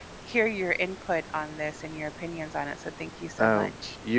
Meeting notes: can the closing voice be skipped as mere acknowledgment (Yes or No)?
No